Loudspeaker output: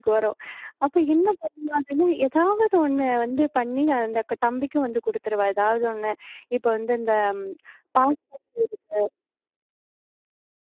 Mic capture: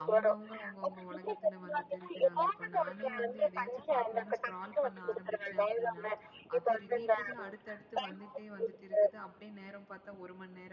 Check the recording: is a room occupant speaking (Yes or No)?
Yes